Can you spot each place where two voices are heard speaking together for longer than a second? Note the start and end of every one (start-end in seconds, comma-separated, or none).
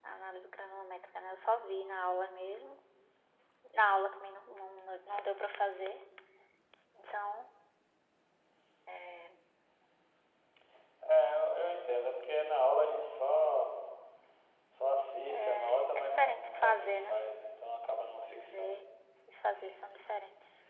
15.3-17.1